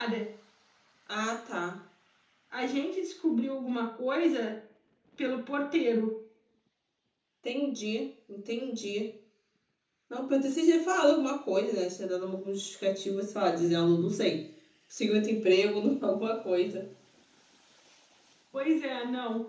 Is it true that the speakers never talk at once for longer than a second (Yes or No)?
Yes